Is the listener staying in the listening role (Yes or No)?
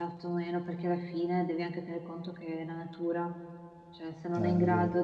Yes